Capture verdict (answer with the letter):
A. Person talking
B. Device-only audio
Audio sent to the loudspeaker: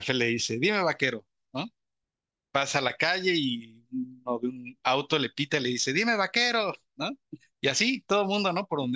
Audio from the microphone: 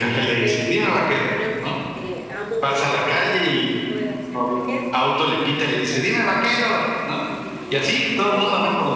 A